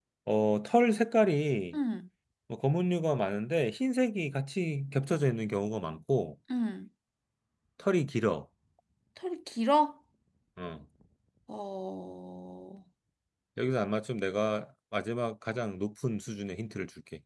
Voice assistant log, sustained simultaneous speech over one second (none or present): none